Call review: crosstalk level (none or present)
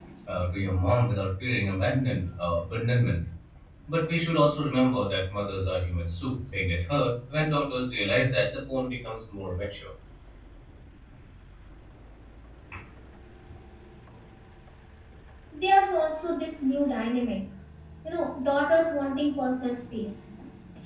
none